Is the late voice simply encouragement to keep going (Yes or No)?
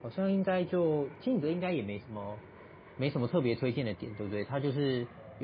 Yes